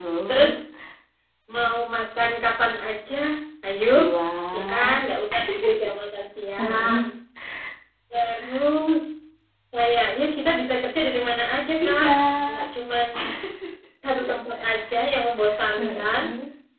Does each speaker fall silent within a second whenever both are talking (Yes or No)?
Yes